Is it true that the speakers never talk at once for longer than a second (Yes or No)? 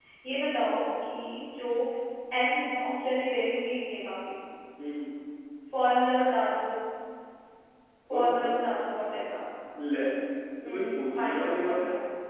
No